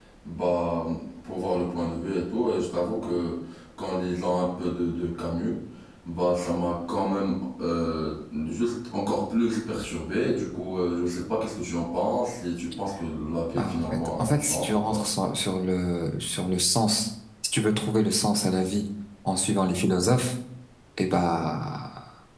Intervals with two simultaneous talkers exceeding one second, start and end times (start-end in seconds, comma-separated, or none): 13.6-15.0